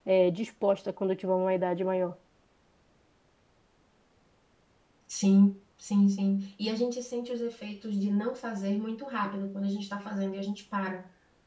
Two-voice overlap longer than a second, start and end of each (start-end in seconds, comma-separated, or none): none